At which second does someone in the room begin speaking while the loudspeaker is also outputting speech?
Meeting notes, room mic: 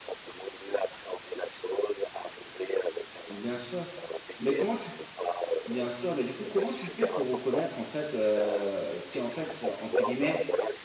3.3 s

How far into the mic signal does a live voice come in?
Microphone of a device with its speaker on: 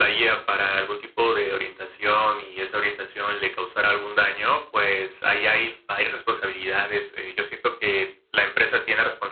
none

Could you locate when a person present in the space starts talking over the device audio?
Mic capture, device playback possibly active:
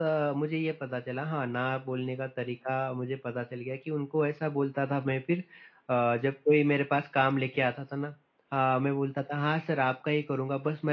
none

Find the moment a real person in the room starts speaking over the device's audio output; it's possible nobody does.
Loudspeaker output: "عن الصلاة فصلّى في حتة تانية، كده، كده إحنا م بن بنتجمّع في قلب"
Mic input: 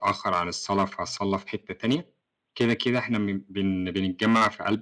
none

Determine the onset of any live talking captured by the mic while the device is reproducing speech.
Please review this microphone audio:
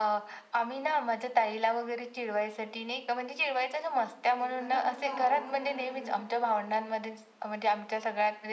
4.4 s

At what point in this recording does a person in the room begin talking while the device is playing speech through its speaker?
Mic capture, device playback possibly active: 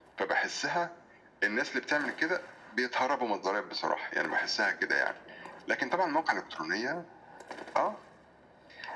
none

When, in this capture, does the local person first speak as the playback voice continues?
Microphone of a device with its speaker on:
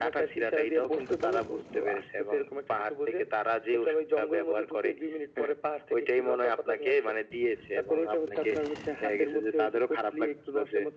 none

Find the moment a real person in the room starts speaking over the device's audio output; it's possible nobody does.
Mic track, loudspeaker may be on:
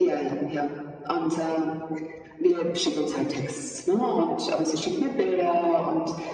none

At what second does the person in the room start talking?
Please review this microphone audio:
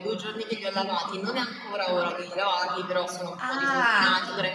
3.4 s

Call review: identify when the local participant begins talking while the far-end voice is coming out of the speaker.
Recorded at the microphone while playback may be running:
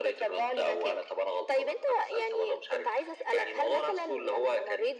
none

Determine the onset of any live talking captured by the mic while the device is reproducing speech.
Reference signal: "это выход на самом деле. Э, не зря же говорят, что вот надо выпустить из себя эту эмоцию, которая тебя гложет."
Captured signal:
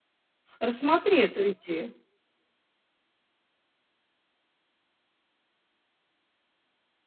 0.6 s

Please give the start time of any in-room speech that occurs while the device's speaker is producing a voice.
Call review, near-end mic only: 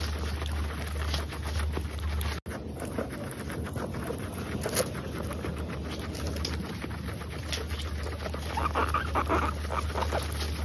none

